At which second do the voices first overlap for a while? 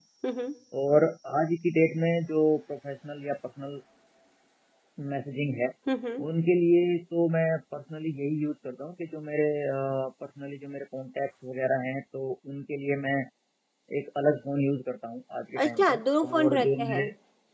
16 s

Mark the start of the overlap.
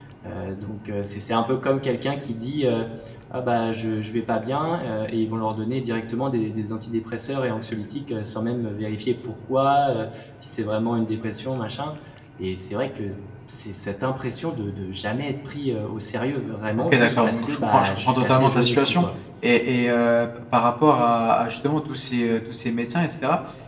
17 s

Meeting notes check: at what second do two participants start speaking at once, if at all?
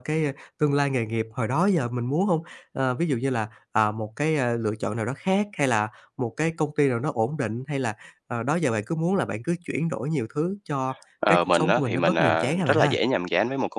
11 s

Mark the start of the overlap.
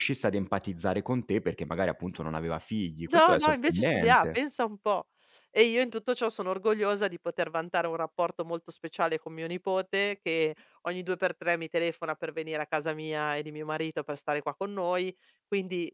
3 s

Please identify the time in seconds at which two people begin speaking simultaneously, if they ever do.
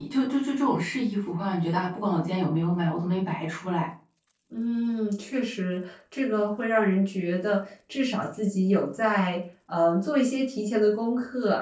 none

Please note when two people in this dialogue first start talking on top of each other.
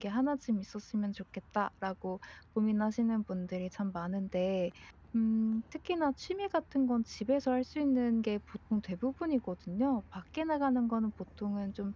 none

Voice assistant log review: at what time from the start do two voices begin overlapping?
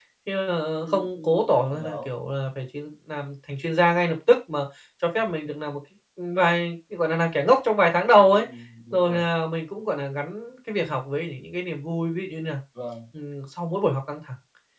1 s

